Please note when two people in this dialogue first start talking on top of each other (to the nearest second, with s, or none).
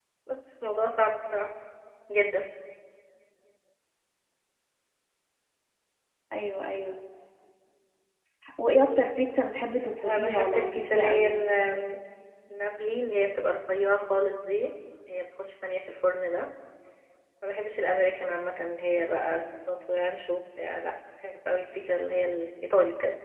10 s